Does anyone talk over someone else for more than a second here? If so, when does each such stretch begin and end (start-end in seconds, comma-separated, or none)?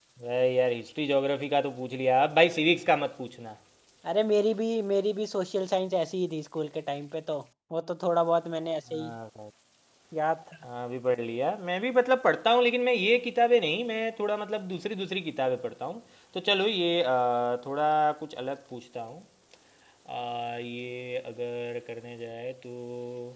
none